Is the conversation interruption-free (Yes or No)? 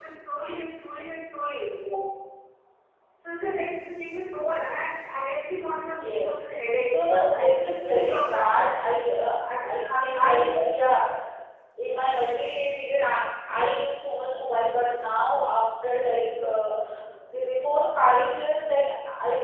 No